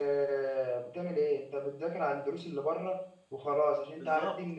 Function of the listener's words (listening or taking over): listening